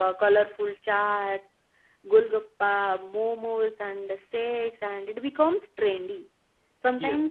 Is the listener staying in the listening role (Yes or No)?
Yes